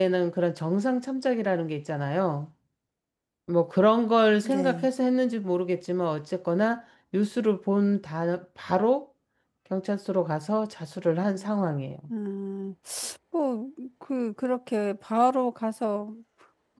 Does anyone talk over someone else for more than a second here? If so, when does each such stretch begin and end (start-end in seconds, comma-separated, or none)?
none